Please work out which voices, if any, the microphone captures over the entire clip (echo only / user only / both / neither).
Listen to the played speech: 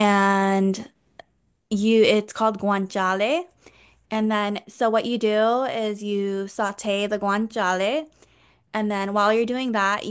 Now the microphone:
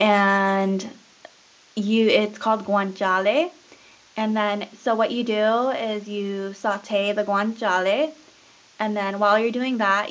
echo only